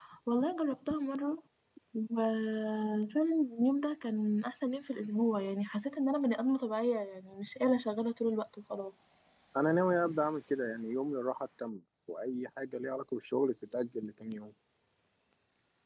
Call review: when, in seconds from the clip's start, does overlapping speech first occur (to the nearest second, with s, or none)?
none